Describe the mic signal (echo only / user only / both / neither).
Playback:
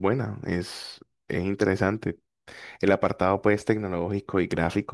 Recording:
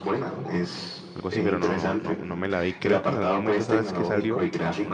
both